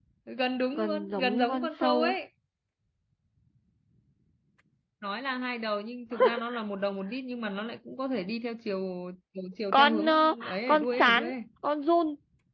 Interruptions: present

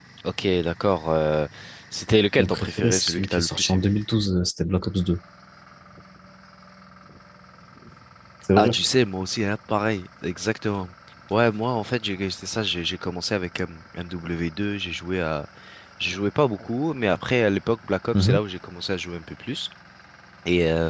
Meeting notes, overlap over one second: present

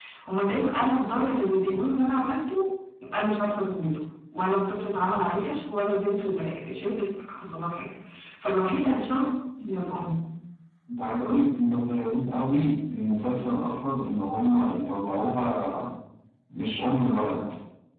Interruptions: none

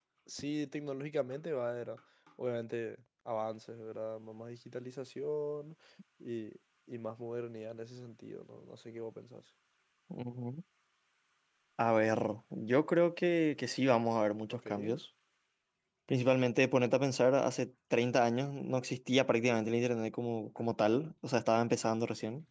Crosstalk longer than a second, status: none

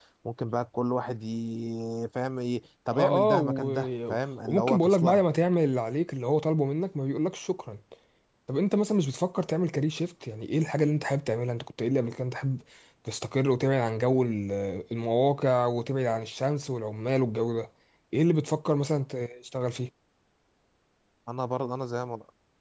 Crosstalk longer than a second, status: present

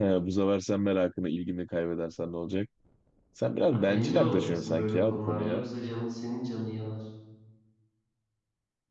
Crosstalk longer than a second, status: present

